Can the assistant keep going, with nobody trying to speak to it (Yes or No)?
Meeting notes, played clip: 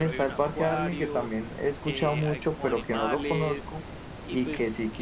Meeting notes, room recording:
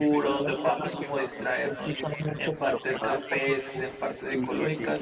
No